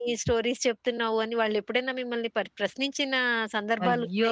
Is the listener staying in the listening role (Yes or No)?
No